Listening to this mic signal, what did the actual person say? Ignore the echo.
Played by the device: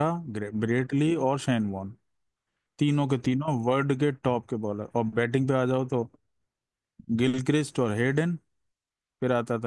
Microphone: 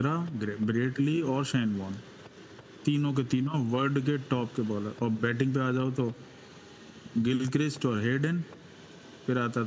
none

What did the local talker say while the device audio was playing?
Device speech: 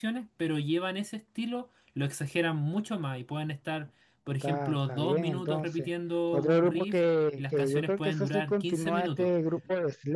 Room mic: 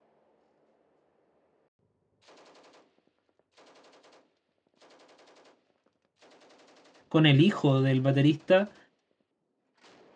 con el hijo del baterista

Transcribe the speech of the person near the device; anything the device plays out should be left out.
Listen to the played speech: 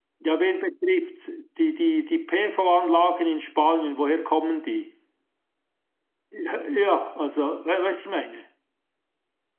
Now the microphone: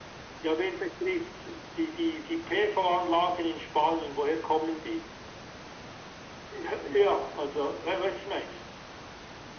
none

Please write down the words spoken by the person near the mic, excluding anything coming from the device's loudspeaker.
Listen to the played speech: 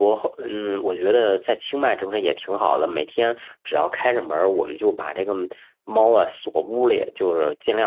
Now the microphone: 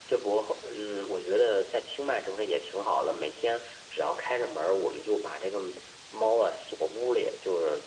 none

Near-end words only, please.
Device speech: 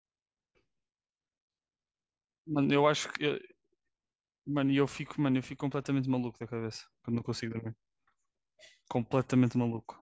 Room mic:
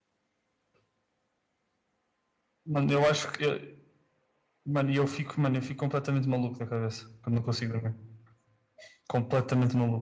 none

